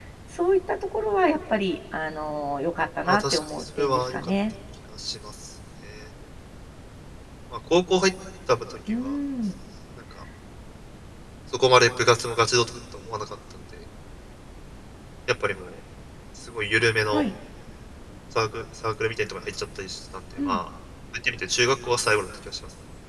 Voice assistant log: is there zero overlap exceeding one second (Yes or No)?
No